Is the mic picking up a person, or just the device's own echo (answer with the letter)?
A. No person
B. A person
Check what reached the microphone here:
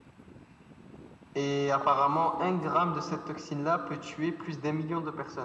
A